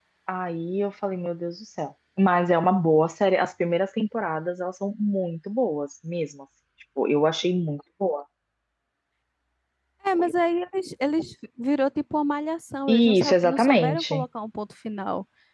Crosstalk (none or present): present